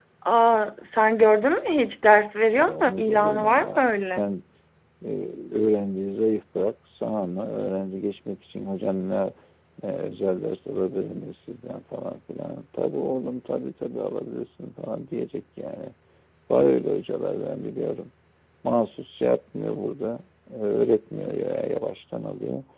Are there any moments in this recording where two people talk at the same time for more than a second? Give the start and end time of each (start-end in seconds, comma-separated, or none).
2.5-4.3